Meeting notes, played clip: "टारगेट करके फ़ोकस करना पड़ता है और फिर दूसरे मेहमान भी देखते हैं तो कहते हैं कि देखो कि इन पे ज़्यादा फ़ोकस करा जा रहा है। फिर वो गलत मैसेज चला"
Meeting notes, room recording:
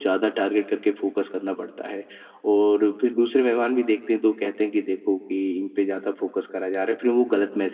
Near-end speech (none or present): none